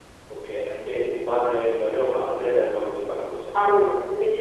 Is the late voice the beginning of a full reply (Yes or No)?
Yes